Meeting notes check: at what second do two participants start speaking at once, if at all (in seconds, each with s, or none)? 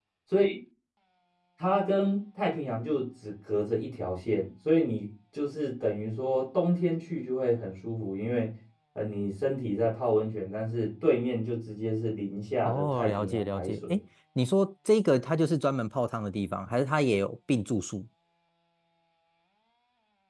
12.6 s